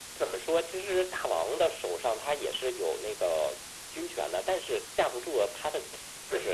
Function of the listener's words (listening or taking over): taking over